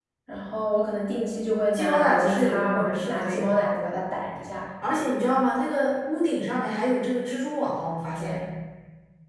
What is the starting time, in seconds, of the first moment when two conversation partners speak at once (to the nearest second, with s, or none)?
2 s